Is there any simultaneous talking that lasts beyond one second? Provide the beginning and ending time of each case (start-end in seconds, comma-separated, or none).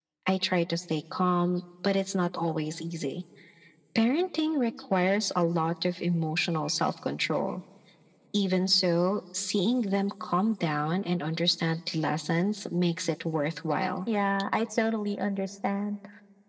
none